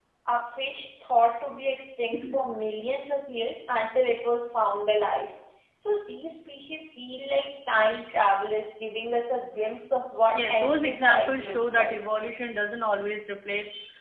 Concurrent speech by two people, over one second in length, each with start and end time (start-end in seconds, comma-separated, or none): 10.3-11.9